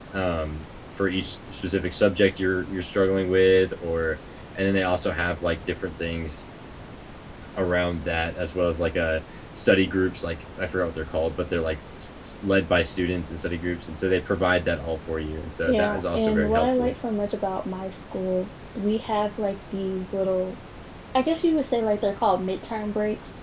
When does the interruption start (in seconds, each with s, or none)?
15.7 s